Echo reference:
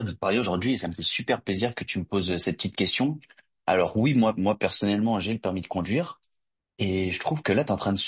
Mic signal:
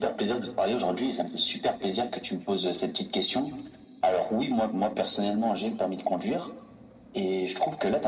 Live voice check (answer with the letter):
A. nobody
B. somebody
A